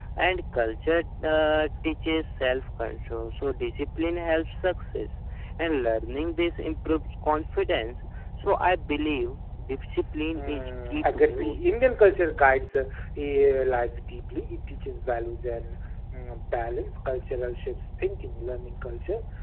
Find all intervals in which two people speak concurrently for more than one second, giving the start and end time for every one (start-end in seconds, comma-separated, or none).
10.3-11.6